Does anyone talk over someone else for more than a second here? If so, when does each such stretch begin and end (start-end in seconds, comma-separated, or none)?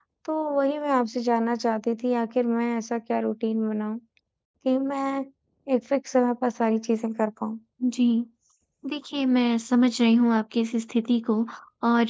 none